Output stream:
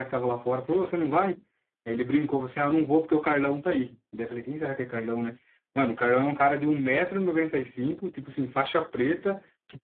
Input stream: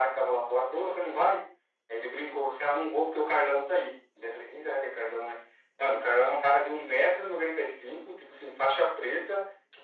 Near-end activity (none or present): none